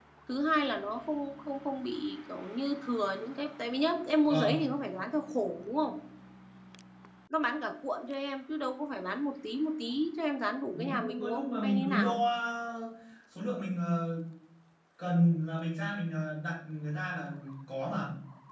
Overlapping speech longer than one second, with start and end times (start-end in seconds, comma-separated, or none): 10.7-12.2